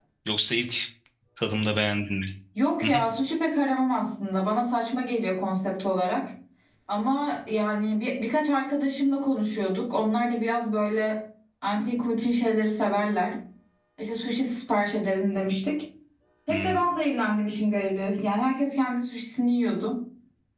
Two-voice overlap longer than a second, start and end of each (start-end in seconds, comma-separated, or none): none